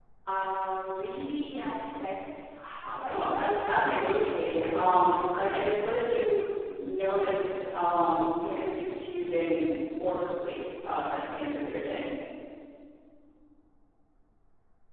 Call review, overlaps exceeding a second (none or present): present